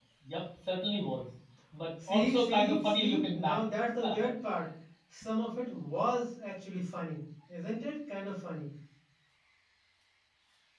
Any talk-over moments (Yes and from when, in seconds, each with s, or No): Yes, from 2.0 s